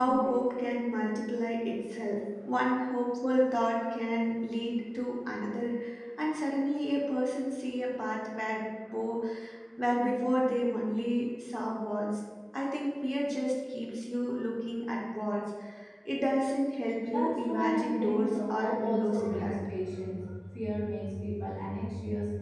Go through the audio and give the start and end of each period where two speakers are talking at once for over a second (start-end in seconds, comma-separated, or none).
17.1-19.5